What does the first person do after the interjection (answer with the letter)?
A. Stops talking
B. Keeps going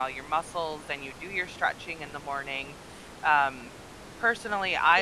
B